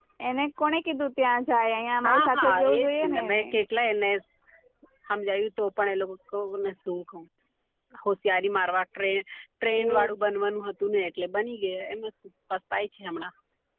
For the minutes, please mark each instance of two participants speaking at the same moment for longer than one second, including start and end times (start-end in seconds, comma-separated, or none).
2.0-3.4